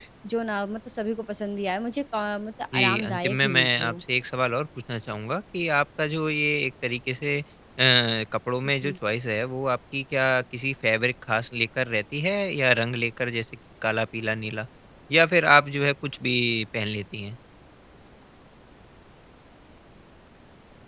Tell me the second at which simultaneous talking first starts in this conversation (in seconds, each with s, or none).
2.7 s